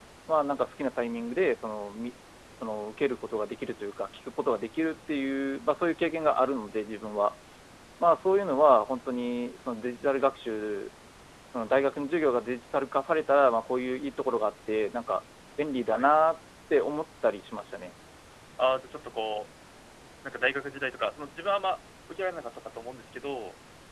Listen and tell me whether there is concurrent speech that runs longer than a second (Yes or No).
No